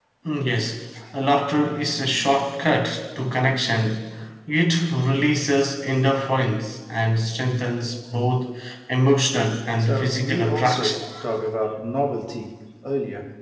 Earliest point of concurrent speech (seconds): 10 s

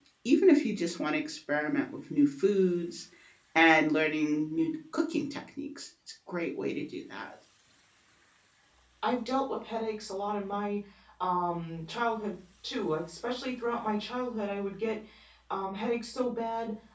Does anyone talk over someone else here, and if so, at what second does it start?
none

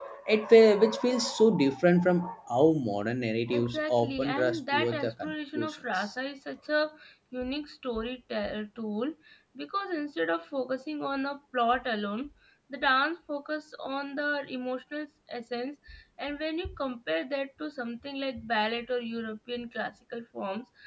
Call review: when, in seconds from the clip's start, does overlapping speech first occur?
4 s

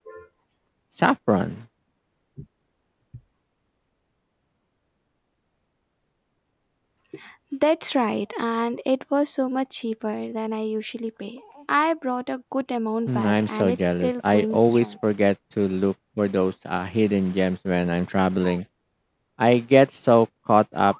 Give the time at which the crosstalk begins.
13 s

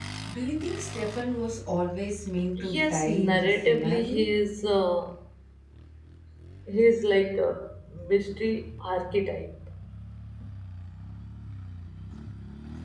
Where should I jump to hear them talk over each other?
3 s

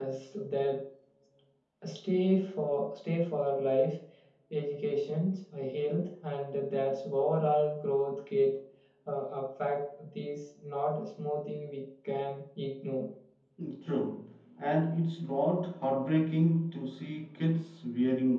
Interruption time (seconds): none

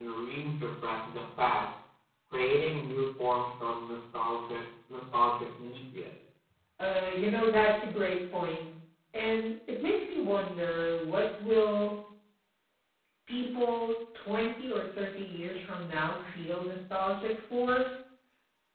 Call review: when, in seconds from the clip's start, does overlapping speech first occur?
none

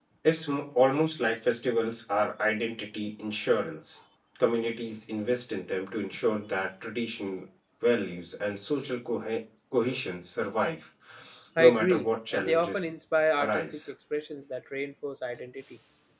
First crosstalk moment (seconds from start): 12 s

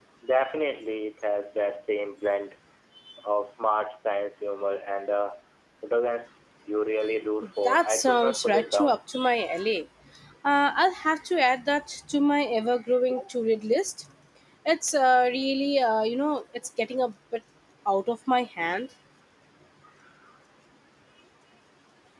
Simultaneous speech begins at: 8 s

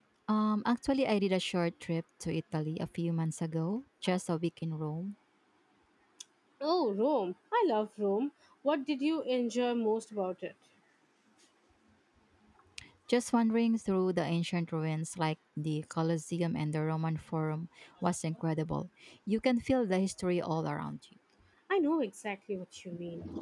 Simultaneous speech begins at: none

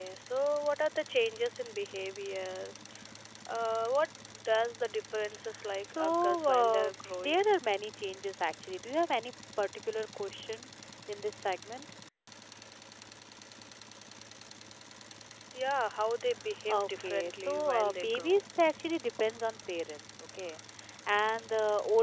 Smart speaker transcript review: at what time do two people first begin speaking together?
6 s

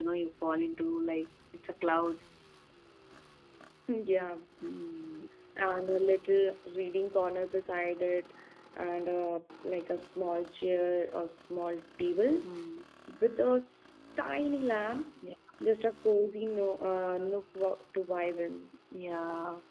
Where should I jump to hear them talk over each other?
none

